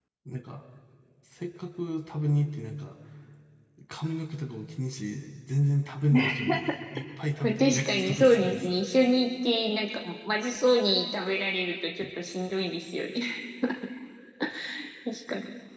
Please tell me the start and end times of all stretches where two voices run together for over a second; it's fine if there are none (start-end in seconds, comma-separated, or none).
7.4-8.8